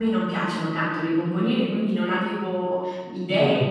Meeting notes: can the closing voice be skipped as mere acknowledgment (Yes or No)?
Yes